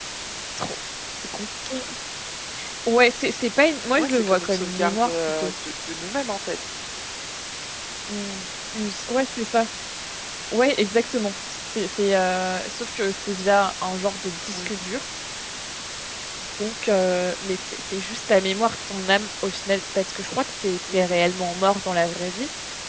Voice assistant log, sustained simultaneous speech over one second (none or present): present